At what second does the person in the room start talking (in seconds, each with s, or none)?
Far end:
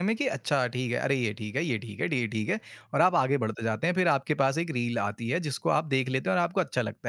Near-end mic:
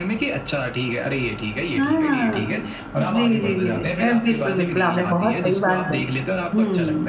1.8 s